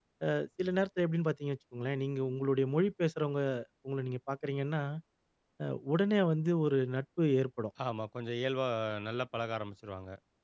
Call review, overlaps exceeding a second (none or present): none